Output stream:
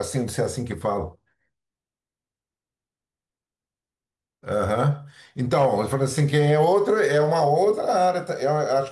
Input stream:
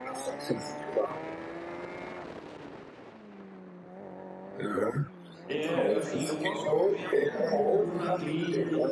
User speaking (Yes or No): Yes